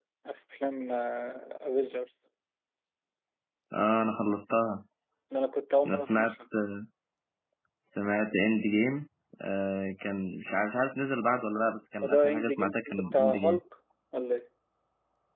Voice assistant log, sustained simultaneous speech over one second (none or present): present